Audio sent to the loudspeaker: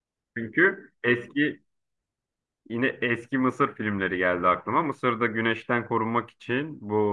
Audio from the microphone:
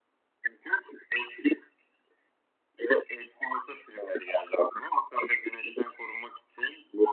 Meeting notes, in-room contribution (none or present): none